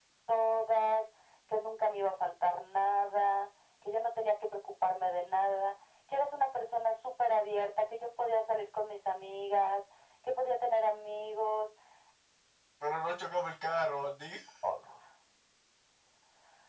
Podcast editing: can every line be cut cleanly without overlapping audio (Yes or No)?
Yes